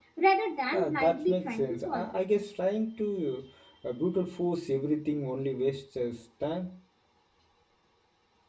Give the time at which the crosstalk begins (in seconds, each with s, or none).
0.7 s